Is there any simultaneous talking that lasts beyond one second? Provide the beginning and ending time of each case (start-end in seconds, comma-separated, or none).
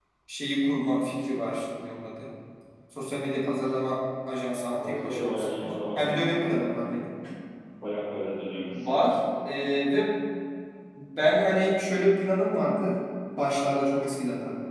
4.8-6.6